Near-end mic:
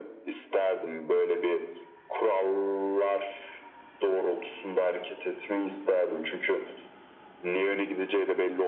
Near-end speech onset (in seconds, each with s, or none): none